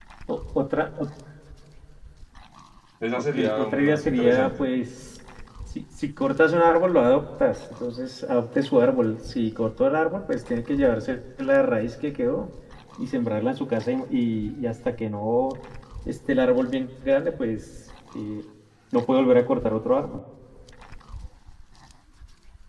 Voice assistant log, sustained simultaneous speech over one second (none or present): present